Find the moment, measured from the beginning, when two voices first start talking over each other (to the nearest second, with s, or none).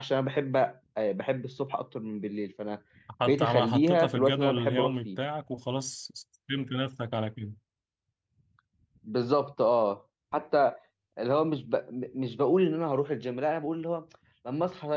3 s